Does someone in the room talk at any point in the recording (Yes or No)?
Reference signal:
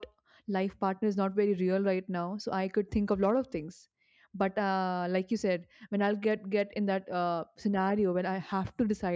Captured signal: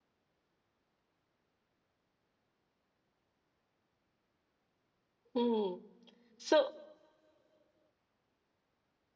Yes